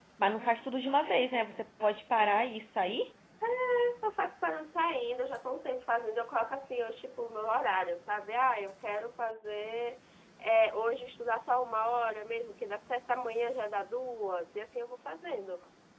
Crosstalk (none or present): none